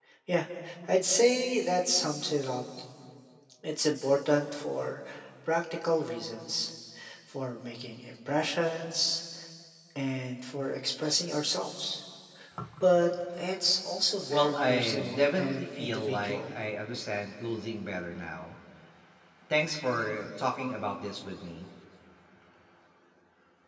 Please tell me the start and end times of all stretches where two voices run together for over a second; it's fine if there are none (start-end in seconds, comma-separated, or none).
14.3-16.5